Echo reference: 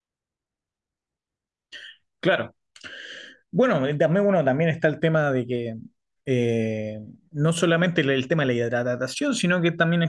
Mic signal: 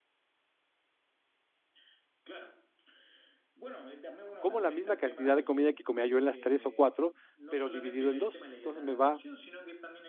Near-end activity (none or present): present